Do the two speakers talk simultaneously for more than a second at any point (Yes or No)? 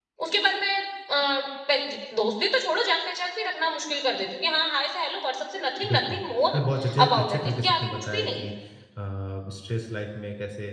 Yes